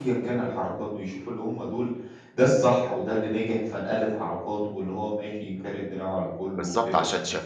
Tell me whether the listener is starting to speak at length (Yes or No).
Yes